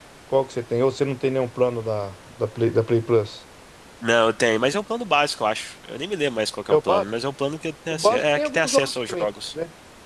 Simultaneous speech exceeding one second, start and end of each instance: 7.9-9.3

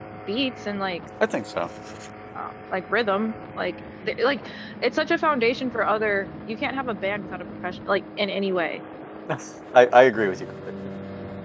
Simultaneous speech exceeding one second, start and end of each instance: none

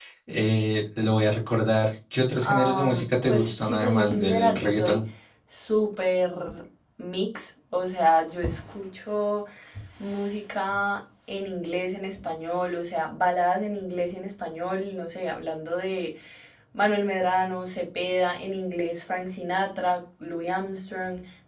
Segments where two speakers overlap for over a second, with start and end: 2.4-5.0

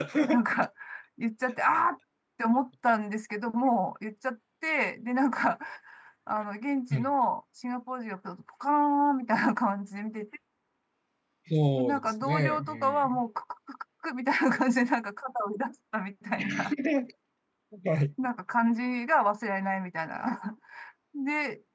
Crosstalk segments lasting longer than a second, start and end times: 11.7-13.2

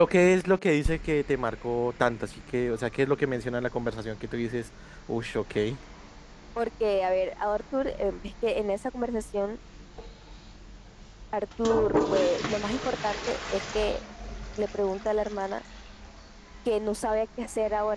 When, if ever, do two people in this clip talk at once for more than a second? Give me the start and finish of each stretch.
none

